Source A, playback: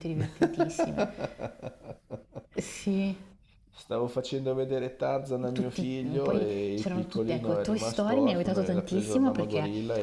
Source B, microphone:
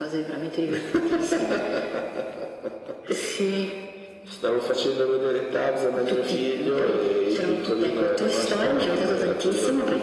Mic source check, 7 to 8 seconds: echo only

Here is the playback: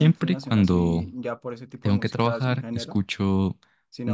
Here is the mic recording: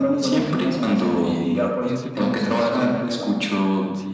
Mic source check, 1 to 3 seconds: both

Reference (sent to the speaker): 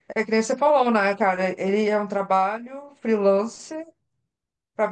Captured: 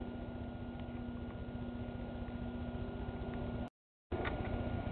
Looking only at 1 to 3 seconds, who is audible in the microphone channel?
neither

